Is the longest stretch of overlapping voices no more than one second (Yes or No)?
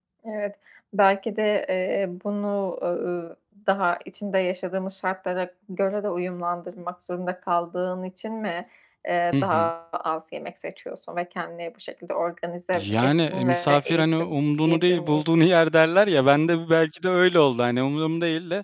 No